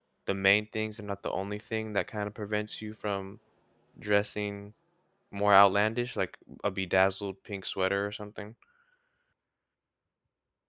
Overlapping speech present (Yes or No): No